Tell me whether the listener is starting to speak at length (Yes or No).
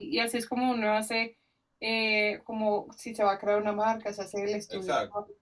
No